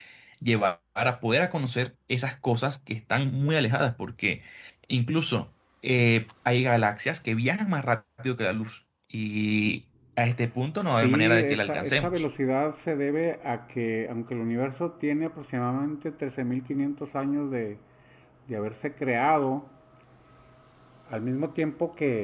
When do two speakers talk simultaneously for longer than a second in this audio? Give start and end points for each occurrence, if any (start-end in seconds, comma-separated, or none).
11.0-12.2